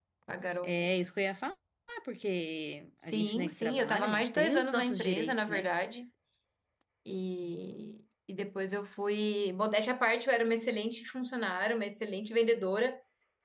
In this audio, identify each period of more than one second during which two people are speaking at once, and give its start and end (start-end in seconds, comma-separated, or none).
3.0-5.7